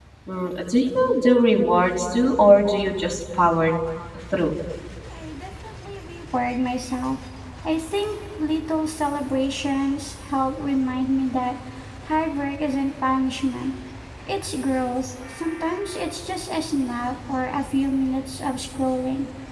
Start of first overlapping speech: none

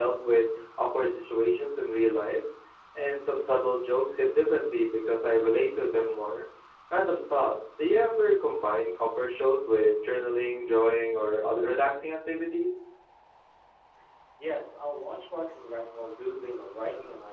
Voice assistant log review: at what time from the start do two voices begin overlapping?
none

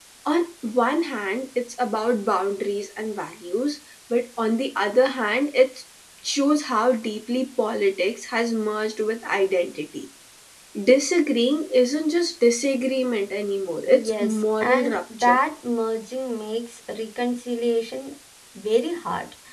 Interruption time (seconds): 13.9 s

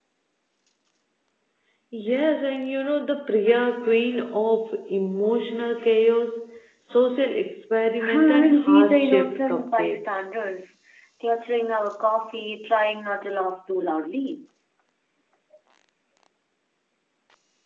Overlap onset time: 8.0 s

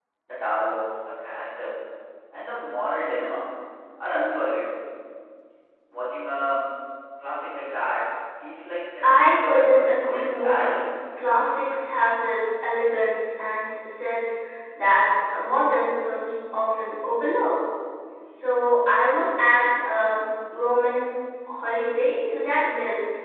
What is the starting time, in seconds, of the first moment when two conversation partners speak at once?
9.0 s

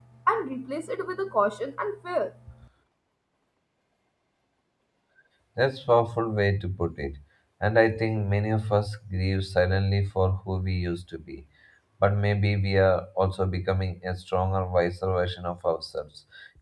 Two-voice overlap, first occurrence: none

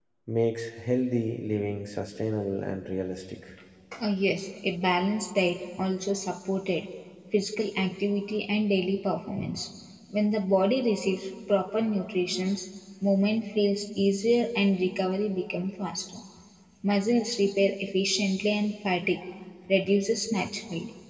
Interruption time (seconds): none

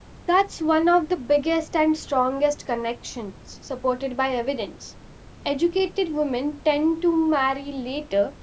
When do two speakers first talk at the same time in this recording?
none

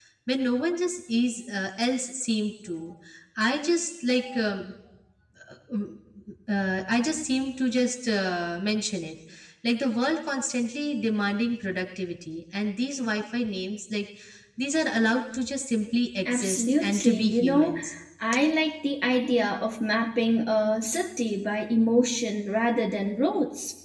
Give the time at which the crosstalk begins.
16.2 s

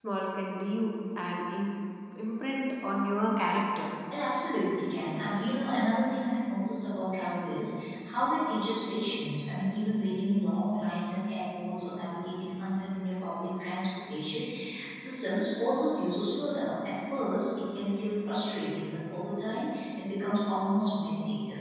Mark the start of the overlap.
none

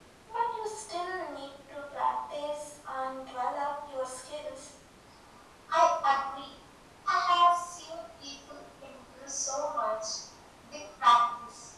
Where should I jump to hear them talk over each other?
none

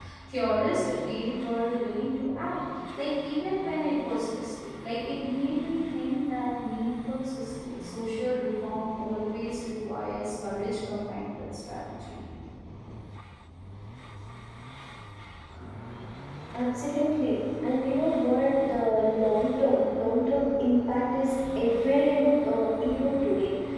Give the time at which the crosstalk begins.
none

